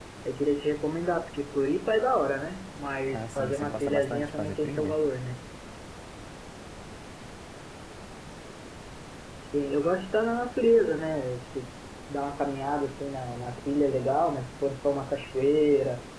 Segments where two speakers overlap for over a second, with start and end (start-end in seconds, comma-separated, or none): 3.1-5.0